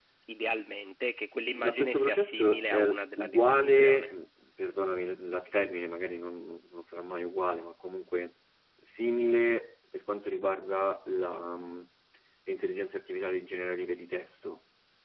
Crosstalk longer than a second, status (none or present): present